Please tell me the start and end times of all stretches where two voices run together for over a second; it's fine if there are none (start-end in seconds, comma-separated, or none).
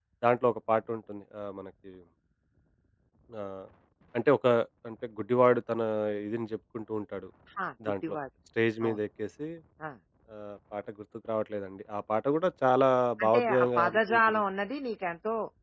13.2-14.4